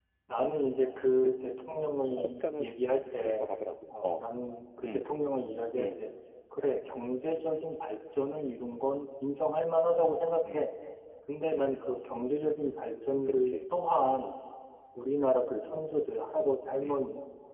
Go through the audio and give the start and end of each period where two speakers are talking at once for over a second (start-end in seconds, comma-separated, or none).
none